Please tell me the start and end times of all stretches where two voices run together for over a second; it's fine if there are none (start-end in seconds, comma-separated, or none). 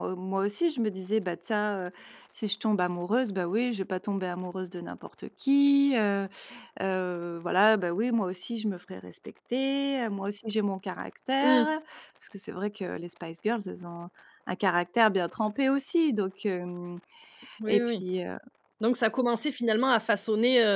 none